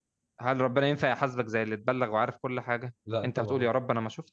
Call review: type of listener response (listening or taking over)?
listening